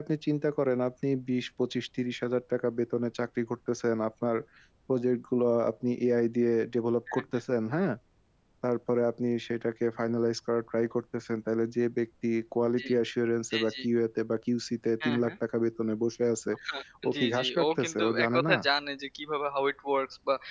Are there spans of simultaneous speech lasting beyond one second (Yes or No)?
Yes